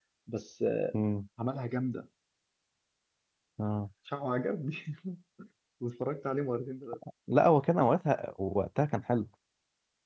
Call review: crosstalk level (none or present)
none